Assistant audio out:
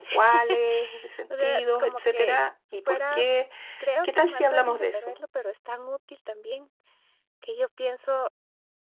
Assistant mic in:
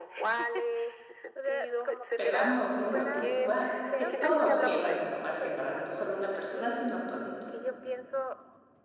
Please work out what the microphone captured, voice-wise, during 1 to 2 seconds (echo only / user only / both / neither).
echo only